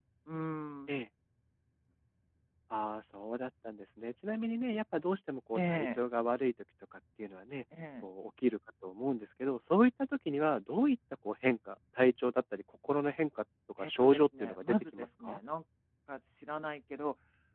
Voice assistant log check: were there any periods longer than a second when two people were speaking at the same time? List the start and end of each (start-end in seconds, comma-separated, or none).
13.8-15.4